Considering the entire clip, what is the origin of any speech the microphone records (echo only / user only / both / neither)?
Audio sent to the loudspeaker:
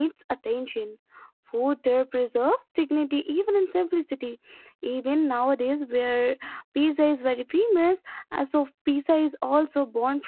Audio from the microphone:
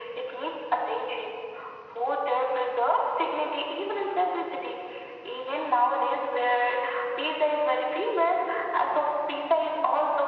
echo only